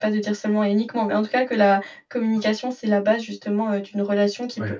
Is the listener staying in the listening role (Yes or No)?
Yes